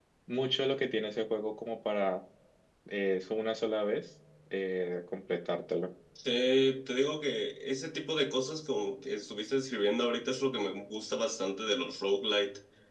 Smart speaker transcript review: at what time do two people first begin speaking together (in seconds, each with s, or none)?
none